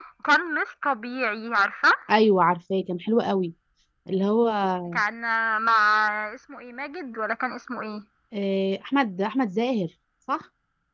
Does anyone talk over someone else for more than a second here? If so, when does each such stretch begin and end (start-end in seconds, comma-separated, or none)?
none